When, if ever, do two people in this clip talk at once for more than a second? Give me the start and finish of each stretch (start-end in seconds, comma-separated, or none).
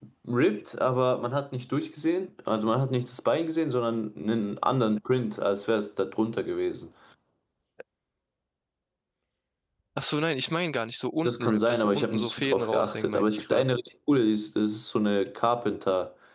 11.2-13.6